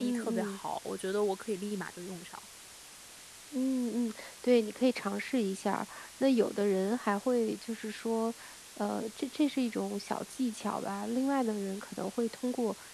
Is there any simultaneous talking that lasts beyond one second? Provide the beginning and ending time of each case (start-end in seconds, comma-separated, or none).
none